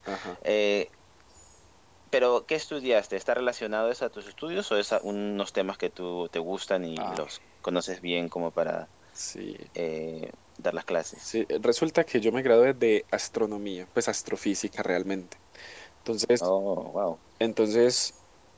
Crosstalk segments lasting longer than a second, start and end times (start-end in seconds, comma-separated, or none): none